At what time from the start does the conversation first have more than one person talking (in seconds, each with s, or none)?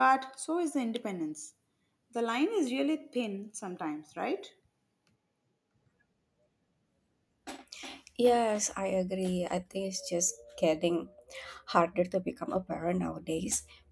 none